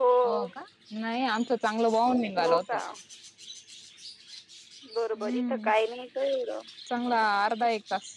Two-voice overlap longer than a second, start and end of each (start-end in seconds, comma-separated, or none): none